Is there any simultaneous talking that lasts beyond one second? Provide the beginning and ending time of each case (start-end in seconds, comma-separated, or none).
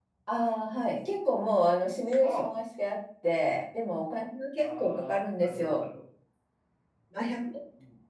4.6-5.8